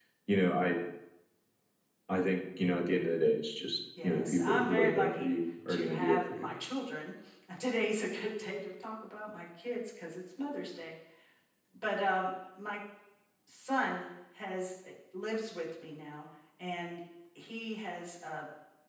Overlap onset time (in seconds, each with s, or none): 4.0 s